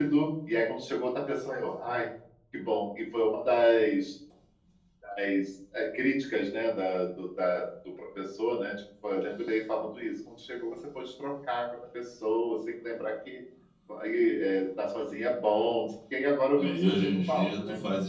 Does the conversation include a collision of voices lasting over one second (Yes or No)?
Yes